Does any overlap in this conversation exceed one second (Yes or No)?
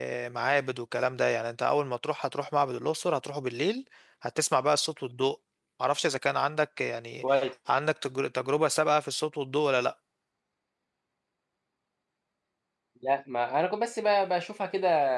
No